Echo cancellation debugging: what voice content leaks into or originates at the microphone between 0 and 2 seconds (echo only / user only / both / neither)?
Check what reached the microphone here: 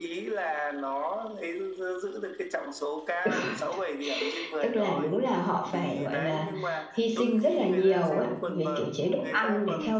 echo only